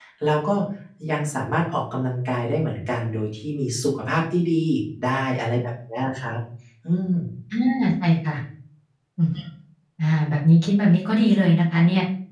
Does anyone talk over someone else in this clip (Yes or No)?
No